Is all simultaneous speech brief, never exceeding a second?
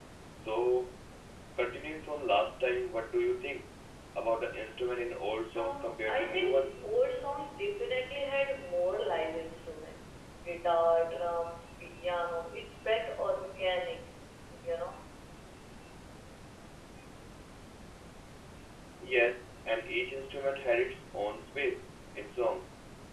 No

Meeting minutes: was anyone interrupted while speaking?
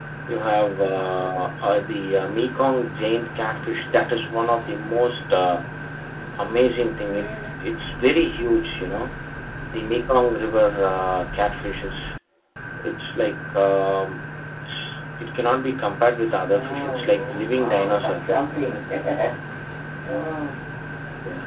Yes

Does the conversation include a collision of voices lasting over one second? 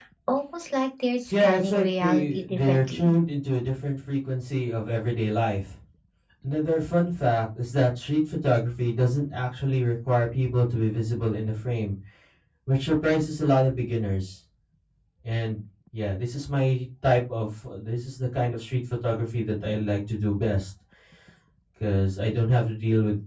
Yes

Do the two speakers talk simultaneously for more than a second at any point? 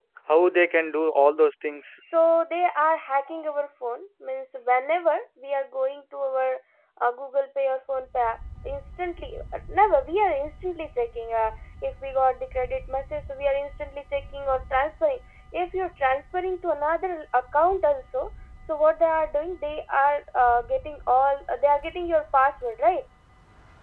No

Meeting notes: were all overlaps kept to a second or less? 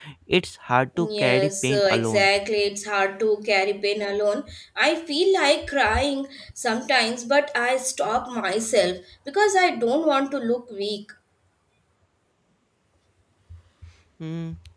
No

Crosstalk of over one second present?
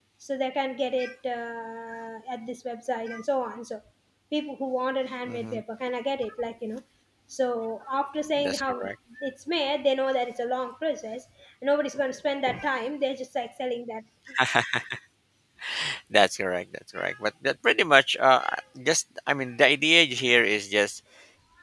No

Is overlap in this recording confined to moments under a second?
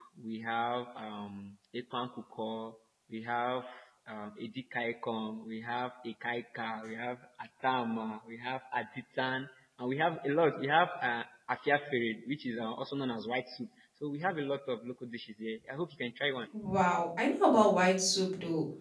Yes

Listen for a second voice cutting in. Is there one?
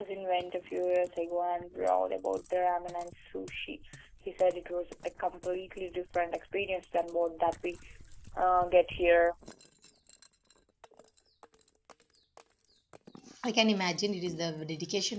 No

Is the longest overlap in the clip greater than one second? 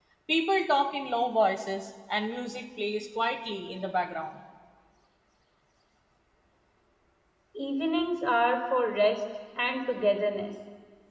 No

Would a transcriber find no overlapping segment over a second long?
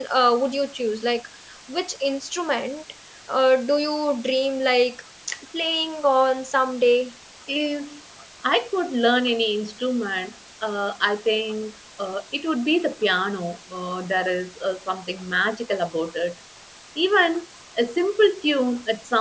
Yes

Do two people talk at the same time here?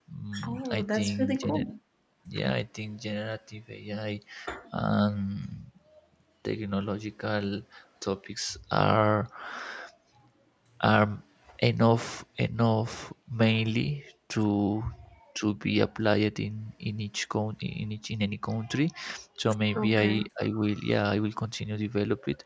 Yes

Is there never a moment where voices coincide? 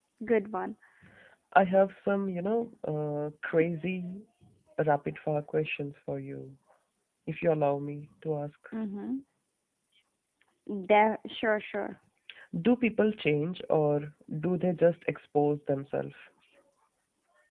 Yes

